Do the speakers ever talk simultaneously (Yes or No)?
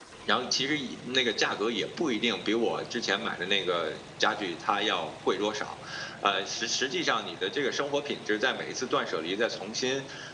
No